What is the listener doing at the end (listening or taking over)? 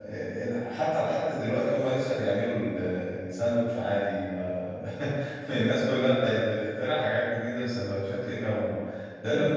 listening